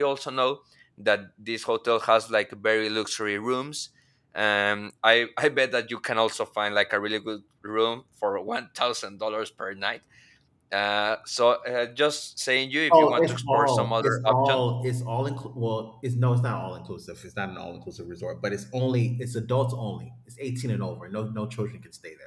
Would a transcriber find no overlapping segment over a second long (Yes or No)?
No